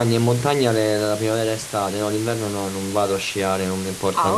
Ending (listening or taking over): taking over